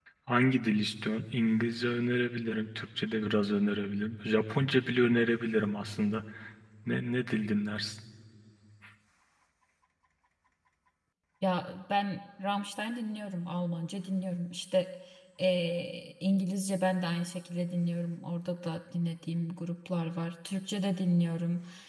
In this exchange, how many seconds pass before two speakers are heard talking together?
none

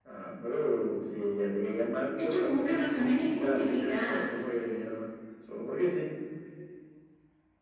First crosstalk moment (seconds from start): 2 s

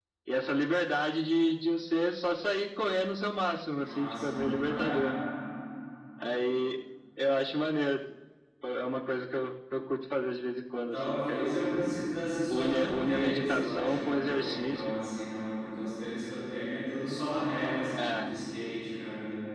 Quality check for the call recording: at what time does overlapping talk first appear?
4 s

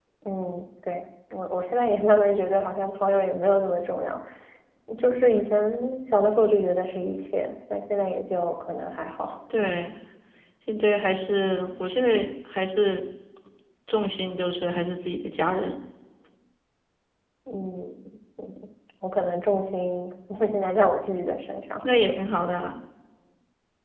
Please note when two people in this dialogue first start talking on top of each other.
none

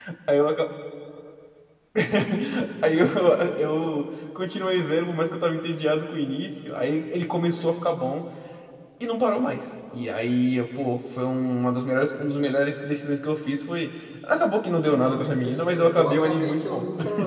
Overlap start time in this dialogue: 15 s

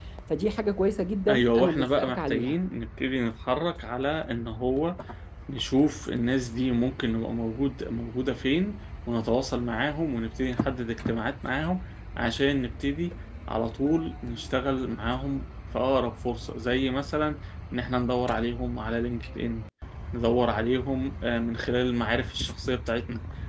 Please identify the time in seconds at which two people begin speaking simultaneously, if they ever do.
1 s

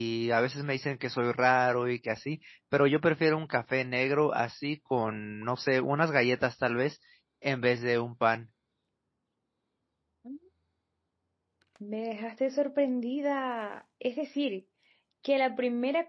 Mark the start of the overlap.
none

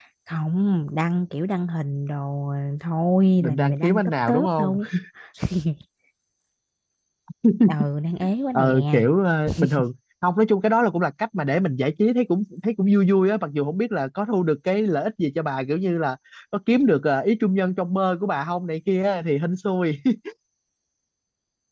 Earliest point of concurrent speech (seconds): 3 s

